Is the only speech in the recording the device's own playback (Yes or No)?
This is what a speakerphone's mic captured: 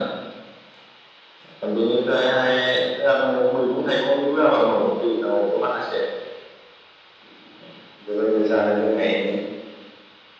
Yes